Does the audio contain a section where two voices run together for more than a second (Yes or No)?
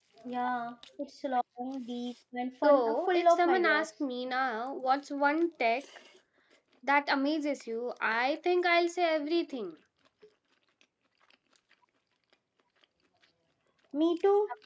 Yes